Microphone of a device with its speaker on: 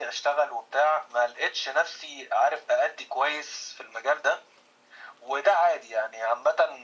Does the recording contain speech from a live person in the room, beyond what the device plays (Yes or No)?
No